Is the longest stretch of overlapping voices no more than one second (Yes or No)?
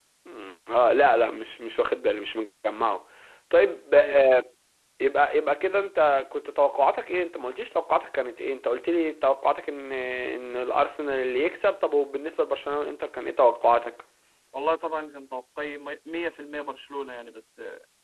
Yes